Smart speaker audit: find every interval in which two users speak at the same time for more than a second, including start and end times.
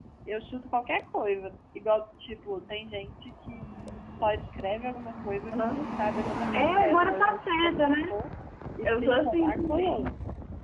6.5-8.2, 8.8-10.1

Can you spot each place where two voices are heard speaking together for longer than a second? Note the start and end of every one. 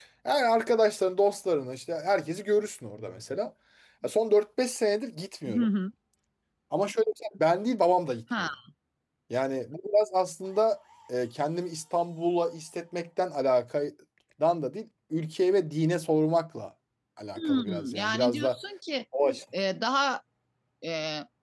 17.4-18.6

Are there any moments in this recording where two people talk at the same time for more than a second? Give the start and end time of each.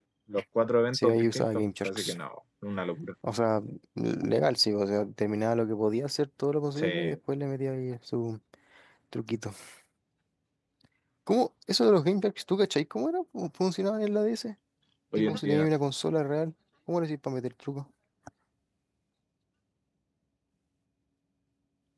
0.9-2.1

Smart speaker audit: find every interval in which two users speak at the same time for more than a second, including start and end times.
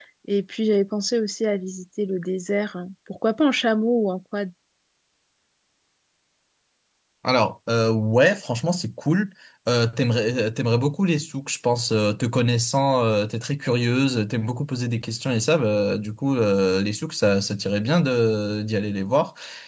none

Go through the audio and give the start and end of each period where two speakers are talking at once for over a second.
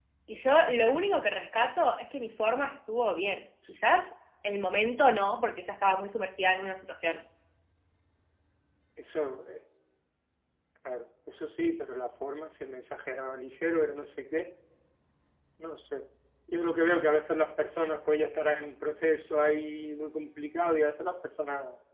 none

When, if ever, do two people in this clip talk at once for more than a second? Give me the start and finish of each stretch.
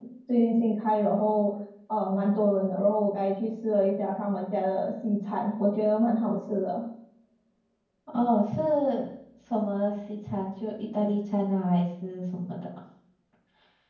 none

